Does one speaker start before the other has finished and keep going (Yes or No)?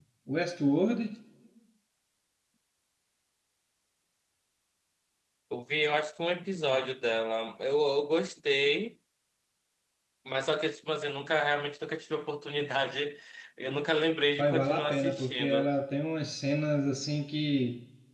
Yes